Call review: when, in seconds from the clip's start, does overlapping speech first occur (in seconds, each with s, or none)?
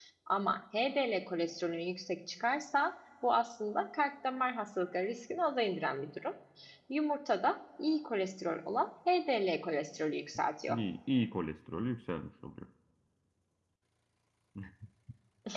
none